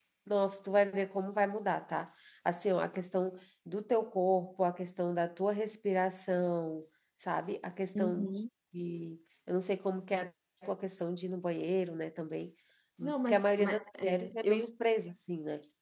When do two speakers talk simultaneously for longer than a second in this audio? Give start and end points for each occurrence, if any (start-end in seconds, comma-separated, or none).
13.0-14.6